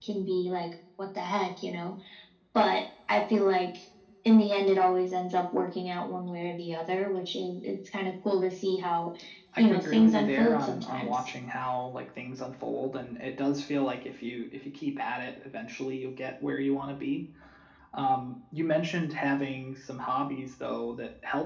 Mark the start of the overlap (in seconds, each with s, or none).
9.6 s